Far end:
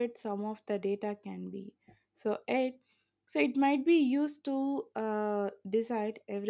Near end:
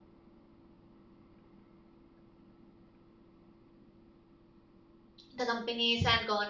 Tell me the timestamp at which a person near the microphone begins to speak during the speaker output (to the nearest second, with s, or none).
5 s